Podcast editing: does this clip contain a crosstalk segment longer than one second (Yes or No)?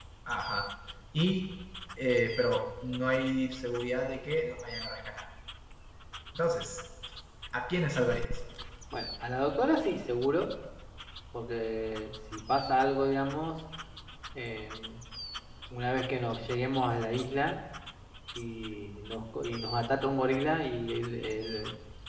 No